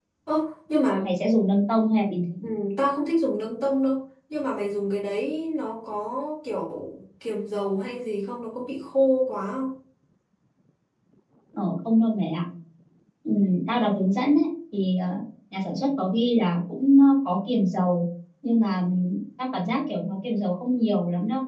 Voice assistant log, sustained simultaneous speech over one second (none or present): none